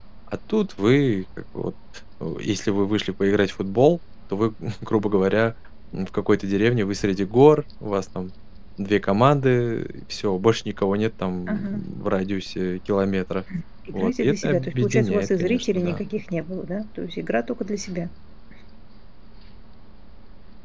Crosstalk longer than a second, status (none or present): present